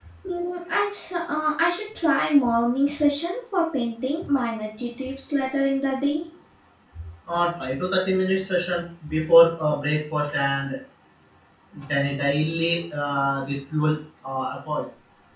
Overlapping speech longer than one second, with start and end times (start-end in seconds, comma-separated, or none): none